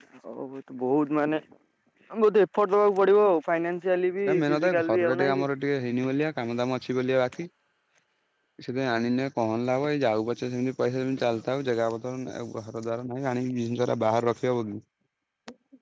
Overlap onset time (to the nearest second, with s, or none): 4 s